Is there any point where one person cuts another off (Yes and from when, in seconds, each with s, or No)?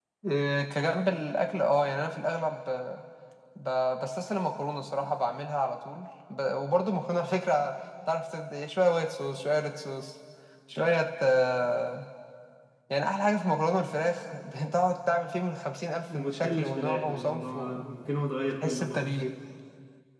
Yes, from 16.1 s